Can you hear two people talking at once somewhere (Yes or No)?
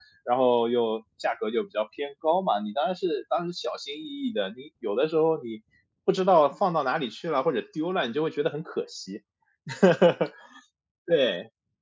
No